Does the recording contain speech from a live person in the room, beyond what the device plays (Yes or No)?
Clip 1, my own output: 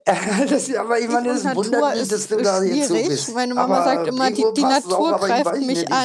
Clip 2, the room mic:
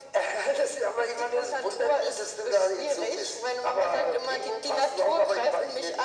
No